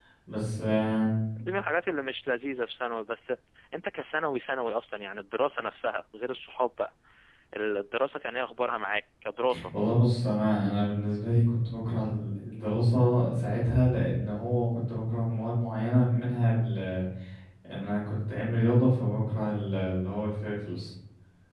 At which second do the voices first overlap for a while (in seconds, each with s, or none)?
none